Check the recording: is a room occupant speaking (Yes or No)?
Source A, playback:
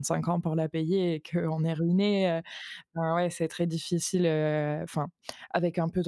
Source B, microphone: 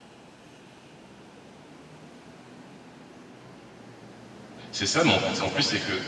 Yes